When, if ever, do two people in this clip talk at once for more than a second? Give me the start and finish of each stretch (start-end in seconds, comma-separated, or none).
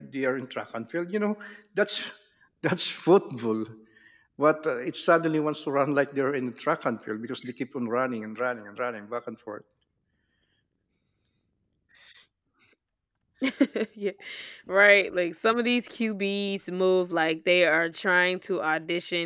none